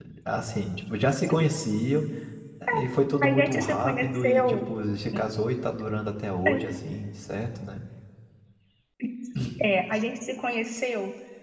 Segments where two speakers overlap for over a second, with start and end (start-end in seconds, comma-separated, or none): 3.2-4.6